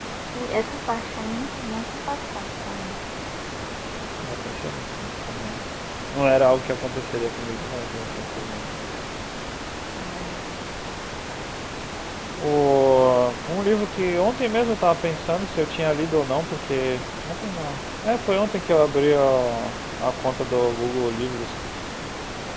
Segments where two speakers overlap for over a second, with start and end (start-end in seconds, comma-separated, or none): none